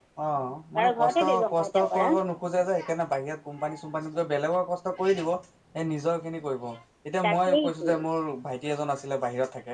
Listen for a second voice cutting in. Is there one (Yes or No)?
Yes